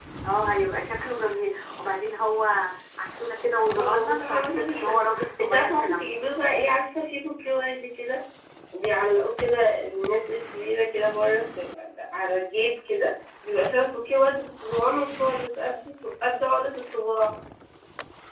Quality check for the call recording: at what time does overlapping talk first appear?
4 s

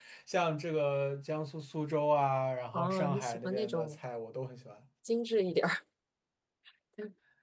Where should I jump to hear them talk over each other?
3 s

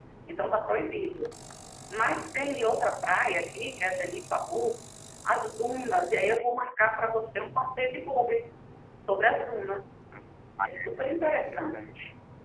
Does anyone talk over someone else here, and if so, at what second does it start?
11 s

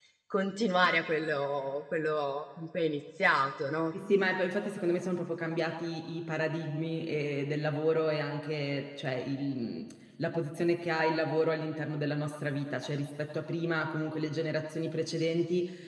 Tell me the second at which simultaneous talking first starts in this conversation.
none

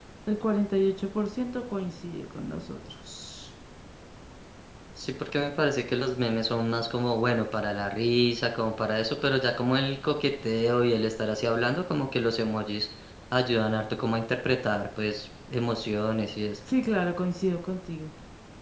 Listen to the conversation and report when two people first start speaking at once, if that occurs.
none

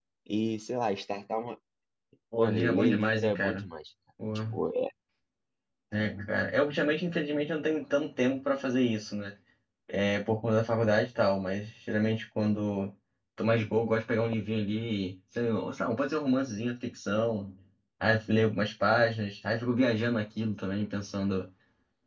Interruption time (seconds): 2 s

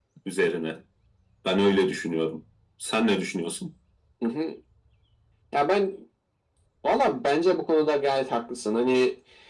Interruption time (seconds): none

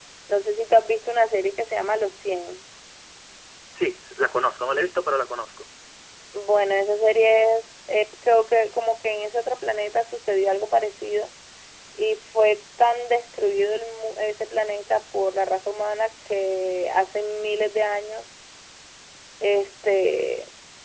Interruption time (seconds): none

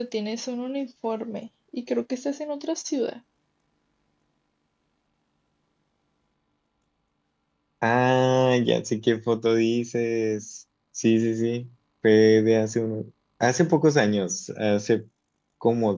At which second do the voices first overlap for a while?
none

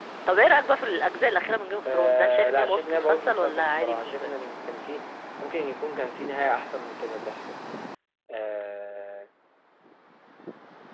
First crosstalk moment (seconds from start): 2 s

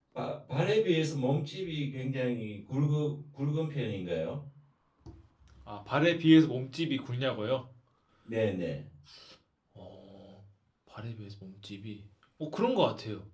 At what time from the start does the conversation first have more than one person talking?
none

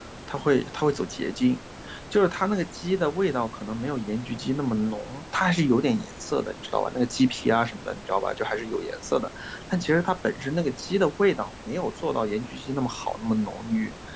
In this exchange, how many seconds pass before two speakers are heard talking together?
none

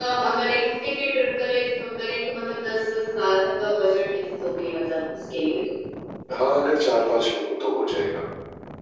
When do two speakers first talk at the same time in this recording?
none

